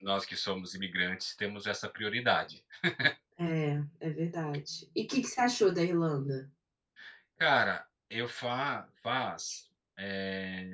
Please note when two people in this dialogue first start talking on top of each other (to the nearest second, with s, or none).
none